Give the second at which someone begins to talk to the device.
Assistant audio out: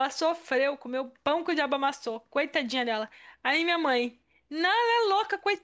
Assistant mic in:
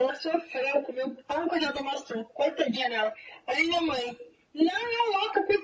none

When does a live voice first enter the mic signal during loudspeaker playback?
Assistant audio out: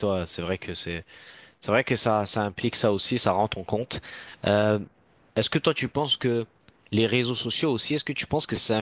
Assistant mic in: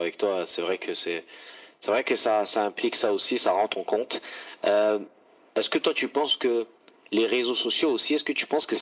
none

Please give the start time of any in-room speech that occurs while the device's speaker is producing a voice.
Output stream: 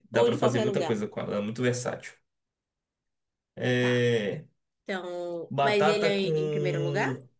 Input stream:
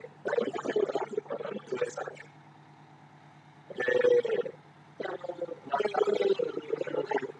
none

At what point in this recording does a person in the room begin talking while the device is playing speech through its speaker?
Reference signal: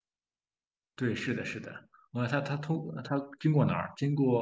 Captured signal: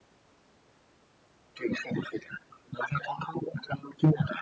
none

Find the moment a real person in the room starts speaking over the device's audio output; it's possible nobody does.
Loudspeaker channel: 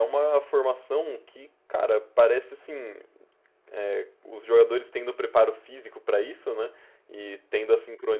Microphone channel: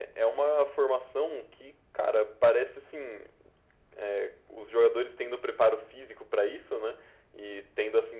none

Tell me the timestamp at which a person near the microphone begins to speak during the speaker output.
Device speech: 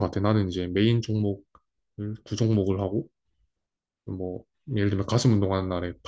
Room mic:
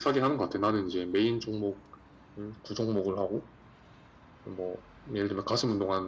none

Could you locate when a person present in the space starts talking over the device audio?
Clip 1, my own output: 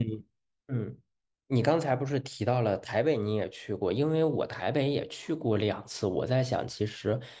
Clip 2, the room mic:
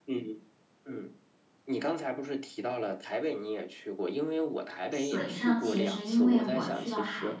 4.9 s

